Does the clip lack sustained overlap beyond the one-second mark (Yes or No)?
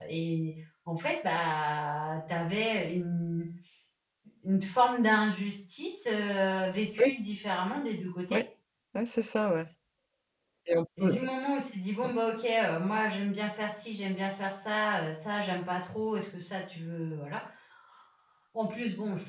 Yes